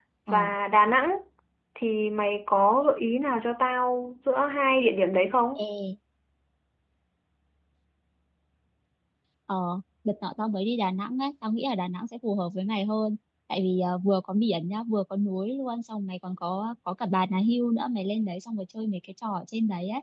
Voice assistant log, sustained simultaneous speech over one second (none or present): none